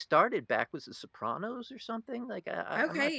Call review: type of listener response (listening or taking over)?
taking over